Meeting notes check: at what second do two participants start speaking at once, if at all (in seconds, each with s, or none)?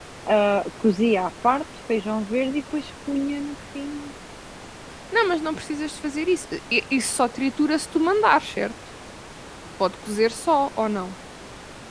none